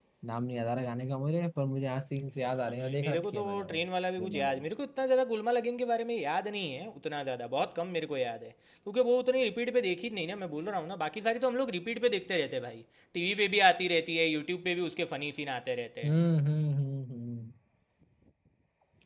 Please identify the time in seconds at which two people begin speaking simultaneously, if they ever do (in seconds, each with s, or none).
2.5 s